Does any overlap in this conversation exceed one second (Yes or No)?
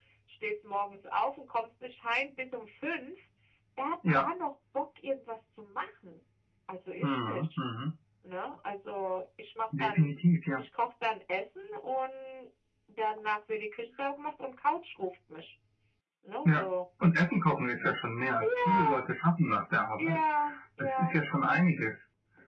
No